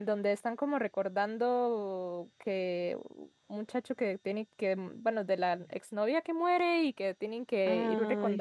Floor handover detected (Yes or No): No